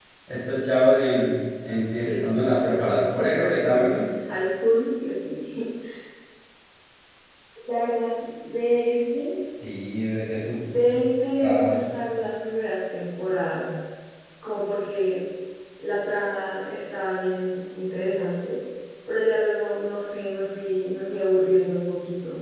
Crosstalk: present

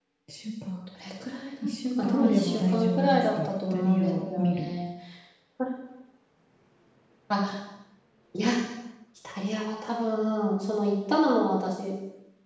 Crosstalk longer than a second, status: present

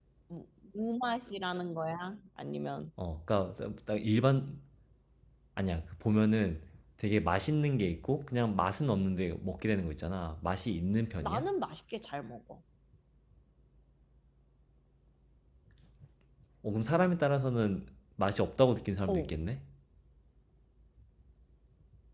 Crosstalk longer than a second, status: none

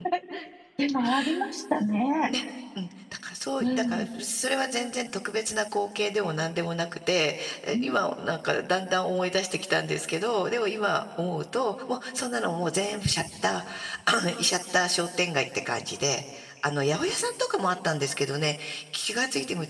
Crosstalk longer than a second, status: none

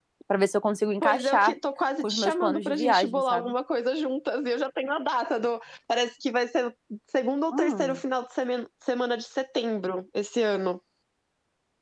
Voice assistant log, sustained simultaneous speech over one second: present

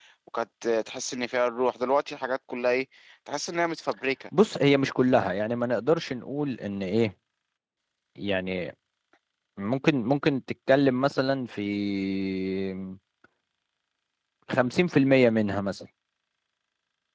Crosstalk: none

